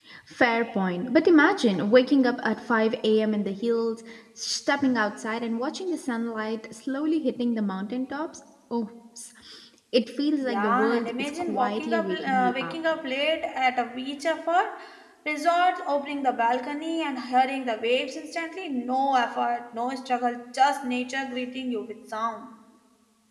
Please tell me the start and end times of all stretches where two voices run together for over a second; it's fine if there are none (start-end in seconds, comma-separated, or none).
10.4-12.7